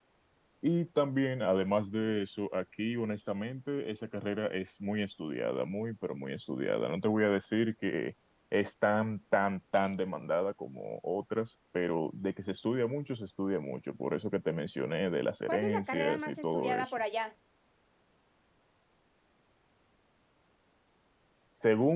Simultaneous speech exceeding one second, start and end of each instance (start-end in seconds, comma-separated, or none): 15.5-16.9